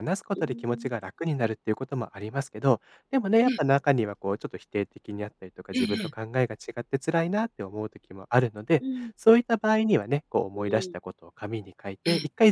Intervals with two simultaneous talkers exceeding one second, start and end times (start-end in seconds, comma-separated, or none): none